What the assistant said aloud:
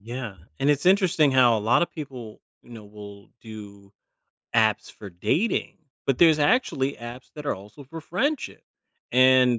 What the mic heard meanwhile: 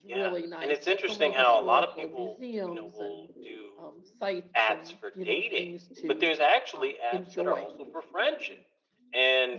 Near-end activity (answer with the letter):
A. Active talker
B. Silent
A